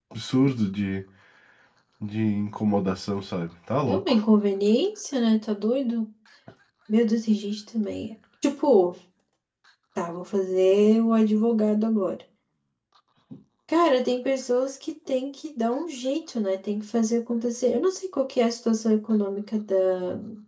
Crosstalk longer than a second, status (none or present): none